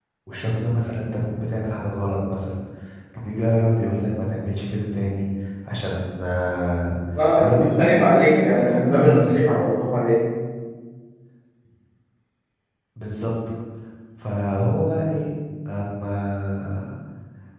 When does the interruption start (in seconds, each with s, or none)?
7.4 s